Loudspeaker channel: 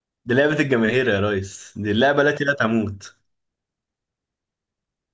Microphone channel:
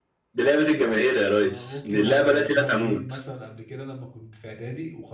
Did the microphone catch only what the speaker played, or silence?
No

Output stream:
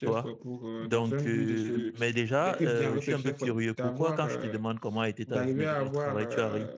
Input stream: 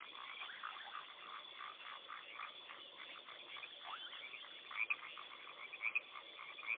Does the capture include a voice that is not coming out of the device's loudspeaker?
No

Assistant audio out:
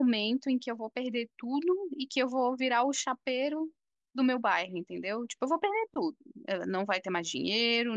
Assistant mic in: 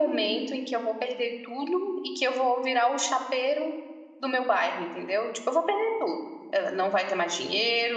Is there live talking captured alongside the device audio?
No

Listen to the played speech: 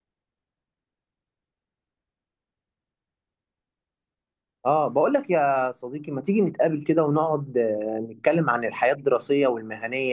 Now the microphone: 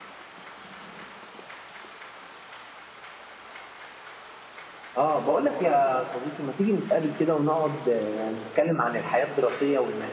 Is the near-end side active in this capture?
No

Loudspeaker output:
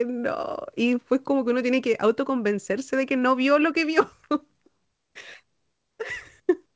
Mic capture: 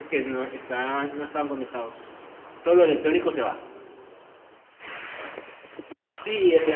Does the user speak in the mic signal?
Yes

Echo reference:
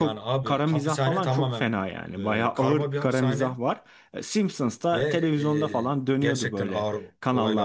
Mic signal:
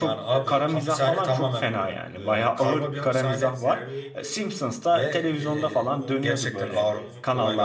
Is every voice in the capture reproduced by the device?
No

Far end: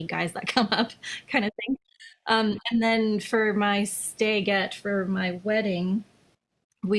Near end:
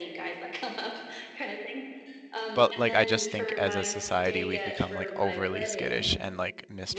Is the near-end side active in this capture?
Yes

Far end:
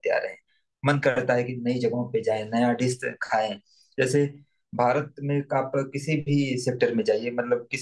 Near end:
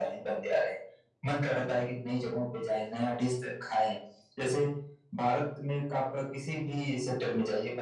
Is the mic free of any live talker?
Yes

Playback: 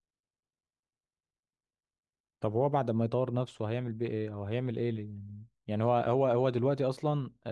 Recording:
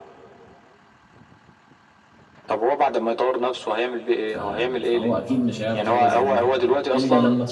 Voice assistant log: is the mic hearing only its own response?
No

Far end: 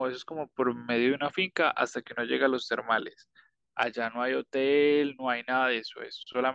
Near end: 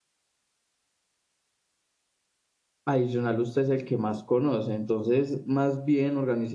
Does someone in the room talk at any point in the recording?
Yes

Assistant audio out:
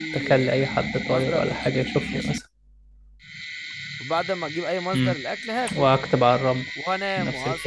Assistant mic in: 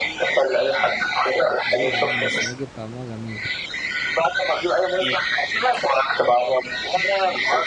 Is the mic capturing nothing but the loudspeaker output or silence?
No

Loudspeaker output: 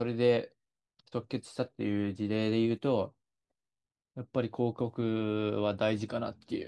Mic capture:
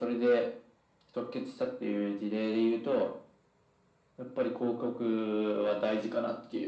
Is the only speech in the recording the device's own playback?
Yes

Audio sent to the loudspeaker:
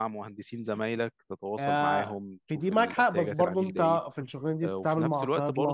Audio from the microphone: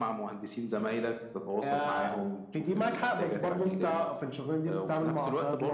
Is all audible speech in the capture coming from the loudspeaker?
Yes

